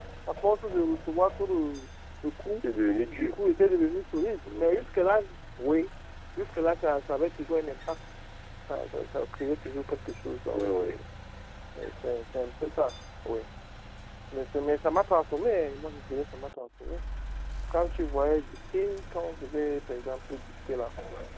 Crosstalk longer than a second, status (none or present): none